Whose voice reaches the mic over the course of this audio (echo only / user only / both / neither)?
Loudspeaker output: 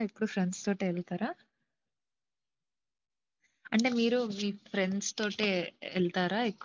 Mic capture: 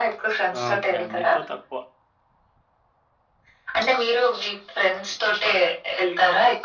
both